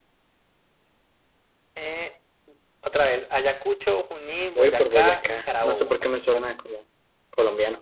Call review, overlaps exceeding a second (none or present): present